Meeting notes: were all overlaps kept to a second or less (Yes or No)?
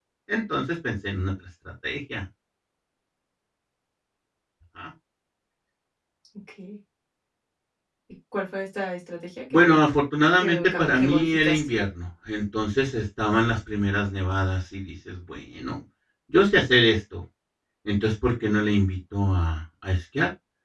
No